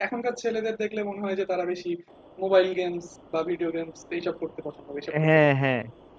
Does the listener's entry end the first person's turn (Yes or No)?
Yes